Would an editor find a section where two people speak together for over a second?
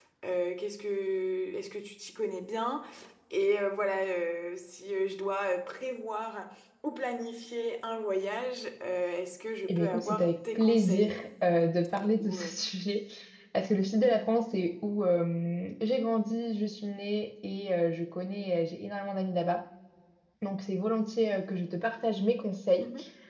Yes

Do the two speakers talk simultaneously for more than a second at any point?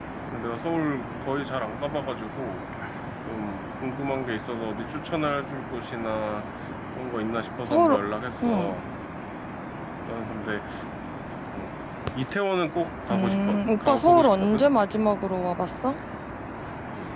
Yes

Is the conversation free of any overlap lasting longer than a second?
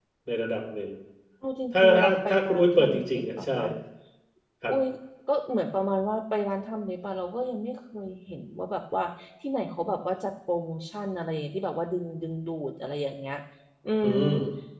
No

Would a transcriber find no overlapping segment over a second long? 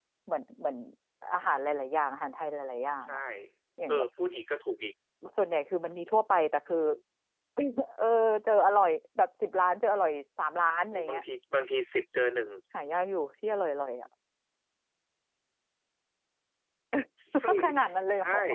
Yes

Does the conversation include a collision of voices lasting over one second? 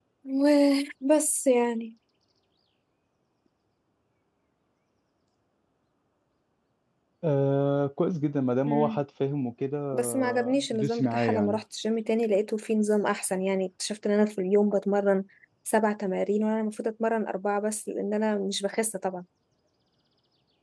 Yes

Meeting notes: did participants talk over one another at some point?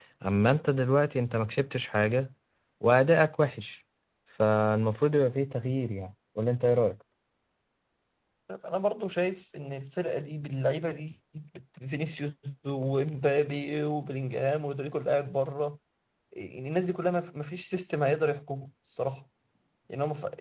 No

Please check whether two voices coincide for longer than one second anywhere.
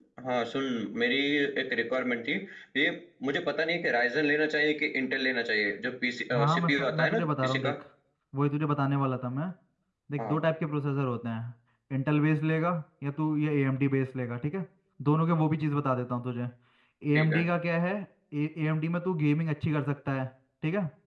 Yes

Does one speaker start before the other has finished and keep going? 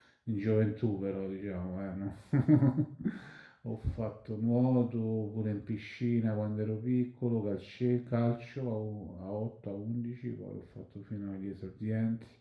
No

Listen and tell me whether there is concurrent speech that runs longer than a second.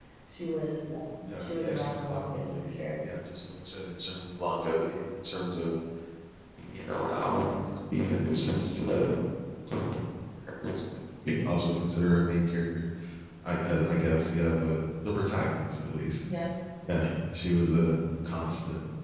Yes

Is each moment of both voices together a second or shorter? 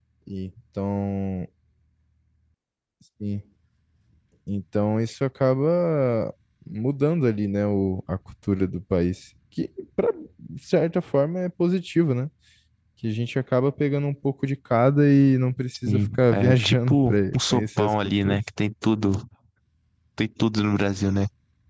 No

